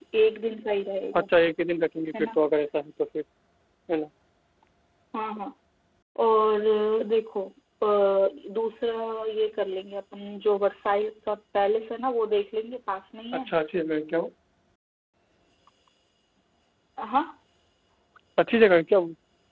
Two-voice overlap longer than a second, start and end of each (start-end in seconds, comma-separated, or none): none